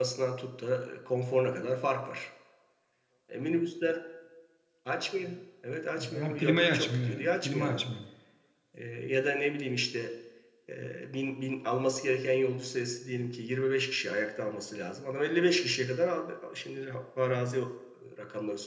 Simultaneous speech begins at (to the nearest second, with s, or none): 6 s